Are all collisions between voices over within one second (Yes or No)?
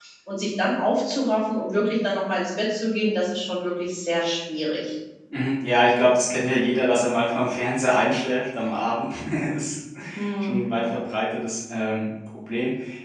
Yes